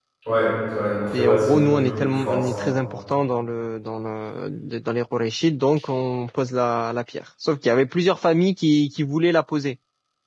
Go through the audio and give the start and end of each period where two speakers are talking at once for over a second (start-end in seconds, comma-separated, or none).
1.1-2.7